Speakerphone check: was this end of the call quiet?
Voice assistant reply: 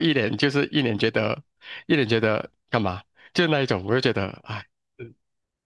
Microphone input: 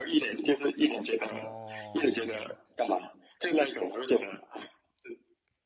No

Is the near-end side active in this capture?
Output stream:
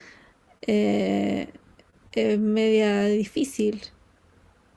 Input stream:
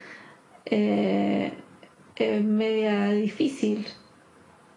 No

